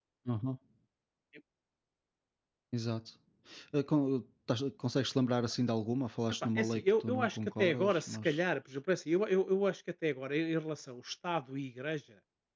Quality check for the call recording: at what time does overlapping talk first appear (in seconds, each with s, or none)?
6.5 s